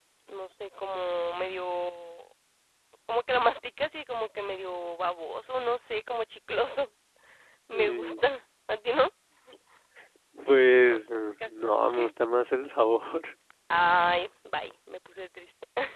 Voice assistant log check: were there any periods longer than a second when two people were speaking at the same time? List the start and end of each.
none

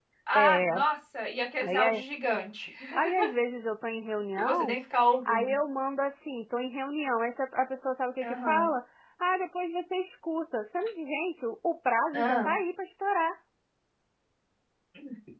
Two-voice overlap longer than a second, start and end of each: none

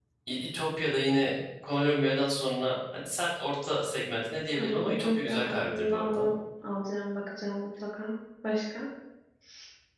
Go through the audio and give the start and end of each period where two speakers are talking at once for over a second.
4.5-6.3

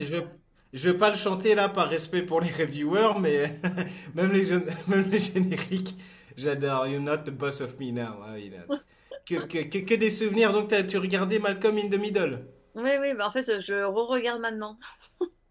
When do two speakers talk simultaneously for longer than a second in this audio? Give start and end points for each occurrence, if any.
none

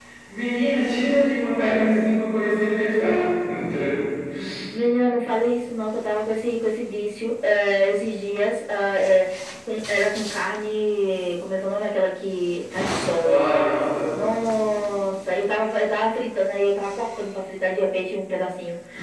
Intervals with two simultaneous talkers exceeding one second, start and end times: none

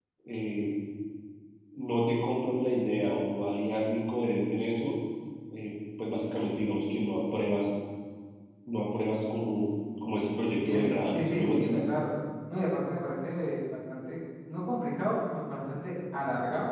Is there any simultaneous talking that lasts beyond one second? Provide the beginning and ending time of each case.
10.4-11.8

